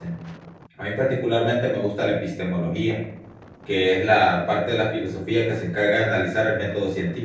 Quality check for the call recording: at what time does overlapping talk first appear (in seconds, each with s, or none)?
none